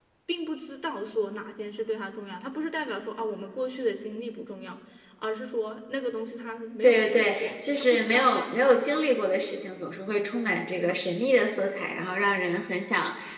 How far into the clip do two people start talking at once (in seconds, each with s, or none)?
6.8 s